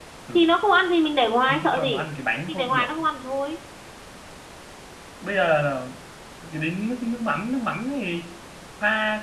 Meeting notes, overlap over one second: none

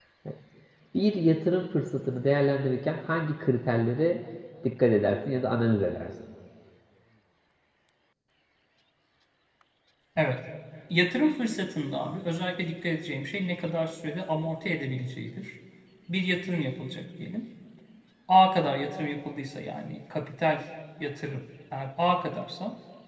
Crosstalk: none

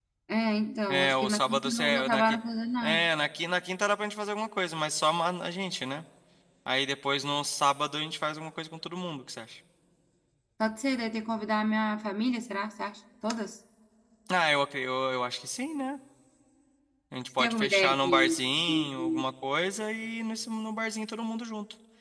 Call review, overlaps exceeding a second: present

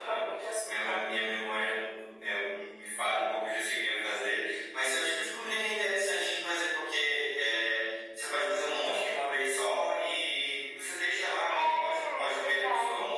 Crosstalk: present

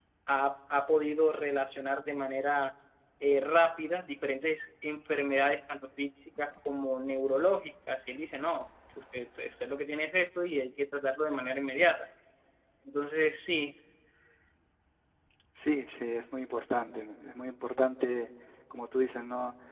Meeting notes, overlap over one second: none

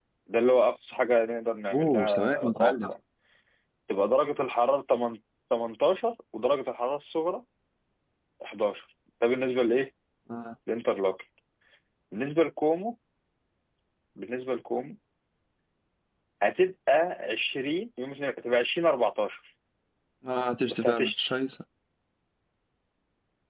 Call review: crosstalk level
present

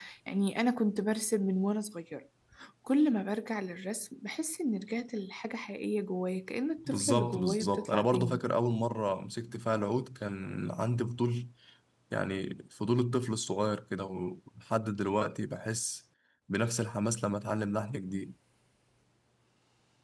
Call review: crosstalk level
present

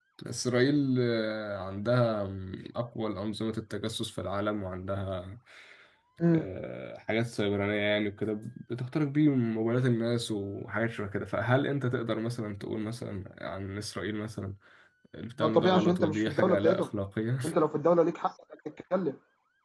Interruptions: present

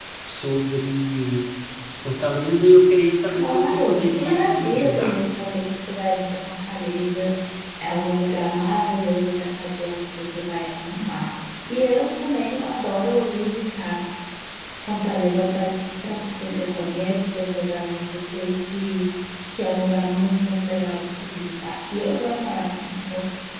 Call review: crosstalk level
present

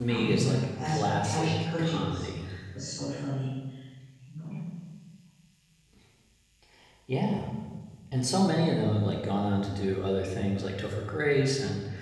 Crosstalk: present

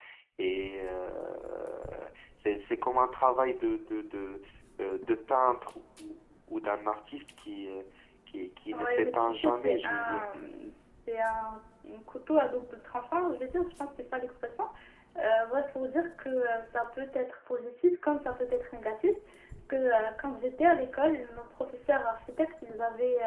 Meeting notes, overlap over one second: present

